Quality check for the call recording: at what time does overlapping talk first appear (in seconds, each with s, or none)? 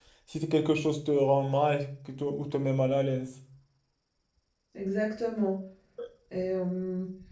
none